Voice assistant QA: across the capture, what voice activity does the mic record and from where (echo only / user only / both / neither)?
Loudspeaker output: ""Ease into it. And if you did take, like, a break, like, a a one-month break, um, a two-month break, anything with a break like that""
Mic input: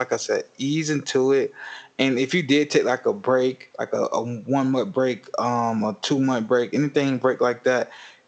echo only